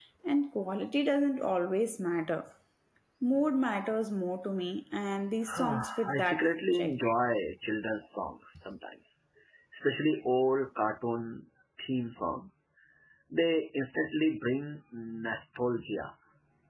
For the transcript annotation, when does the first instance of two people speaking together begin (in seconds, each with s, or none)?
5.5 s